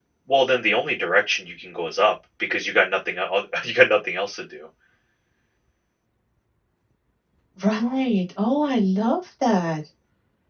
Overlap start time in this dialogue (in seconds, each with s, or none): none